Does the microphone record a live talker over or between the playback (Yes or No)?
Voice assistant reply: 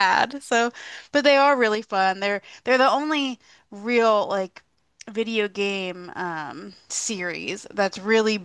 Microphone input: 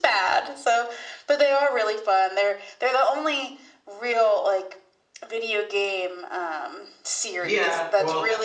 Yes